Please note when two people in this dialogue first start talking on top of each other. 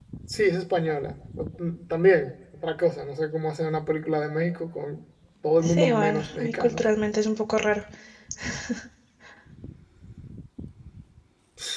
6 s

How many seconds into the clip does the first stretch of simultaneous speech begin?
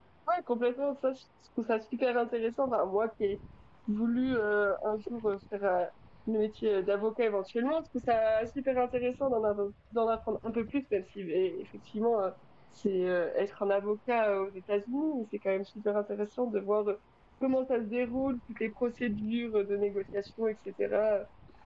none

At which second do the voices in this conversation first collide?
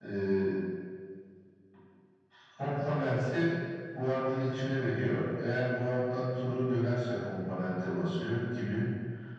none

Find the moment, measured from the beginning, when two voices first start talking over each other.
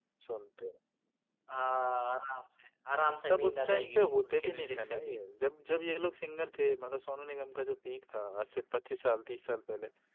3 s

